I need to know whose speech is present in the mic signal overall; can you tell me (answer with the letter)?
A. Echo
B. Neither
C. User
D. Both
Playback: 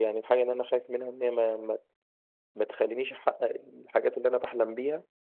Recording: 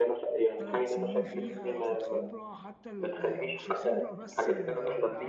D